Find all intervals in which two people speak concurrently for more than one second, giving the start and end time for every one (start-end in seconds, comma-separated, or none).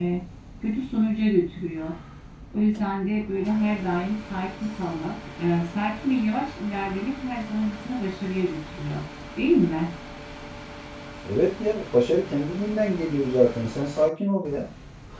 none